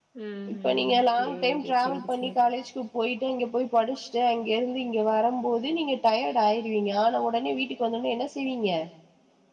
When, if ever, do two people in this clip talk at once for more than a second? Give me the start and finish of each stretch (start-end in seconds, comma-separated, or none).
0.5-2.4